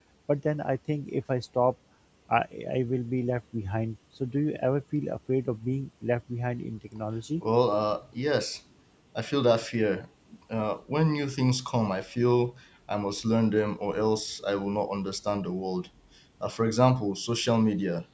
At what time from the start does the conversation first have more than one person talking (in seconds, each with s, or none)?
none